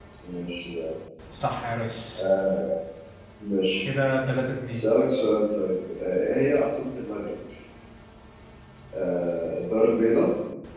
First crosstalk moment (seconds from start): none

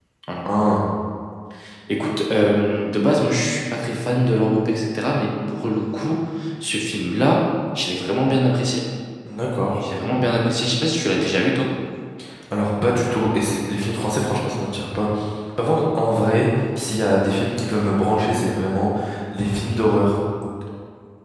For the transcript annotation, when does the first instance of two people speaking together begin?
none

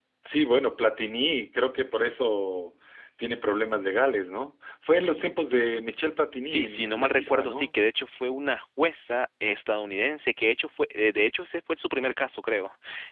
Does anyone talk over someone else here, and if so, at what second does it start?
6 s

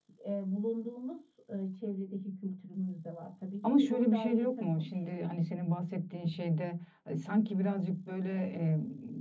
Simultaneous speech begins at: 4 s

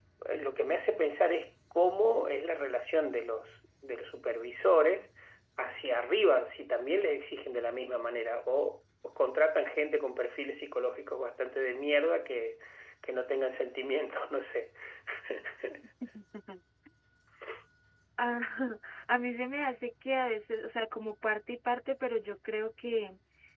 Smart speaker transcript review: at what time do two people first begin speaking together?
none

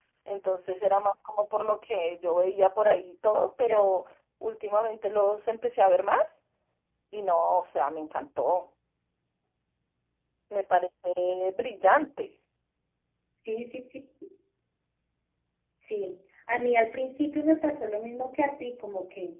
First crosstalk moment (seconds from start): none

